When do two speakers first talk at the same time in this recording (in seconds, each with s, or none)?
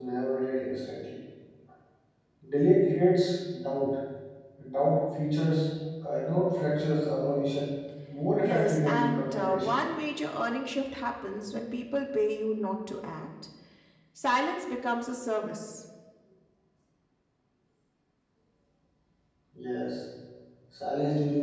8.4 s